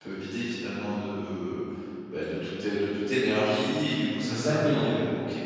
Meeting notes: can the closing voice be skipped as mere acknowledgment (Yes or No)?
Yes